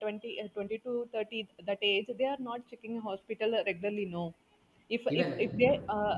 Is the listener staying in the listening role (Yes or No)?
Yes